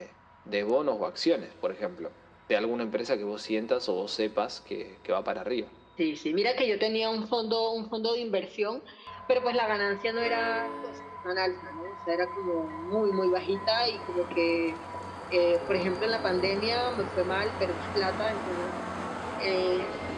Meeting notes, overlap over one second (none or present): none